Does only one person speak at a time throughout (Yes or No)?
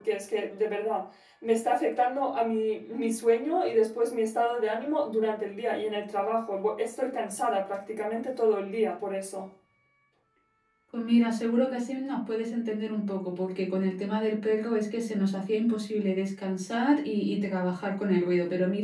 Yes